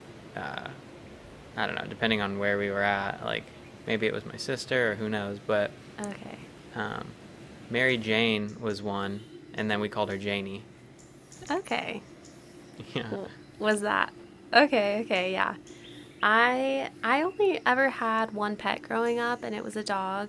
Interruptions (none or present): none